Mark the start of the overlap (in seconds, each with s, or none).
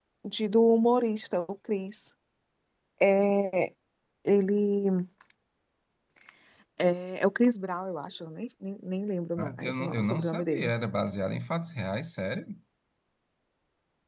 9.4 s